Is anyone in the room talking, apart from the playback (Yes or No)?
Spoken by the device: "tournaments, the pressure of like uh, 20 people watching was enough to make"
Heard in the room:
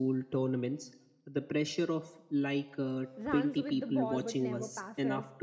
Yes